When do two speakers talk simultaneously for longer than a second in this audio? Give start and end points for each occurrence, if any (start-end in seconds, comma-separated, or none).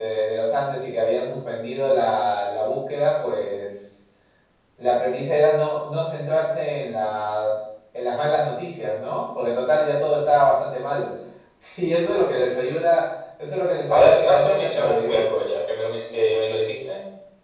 13.9-15.2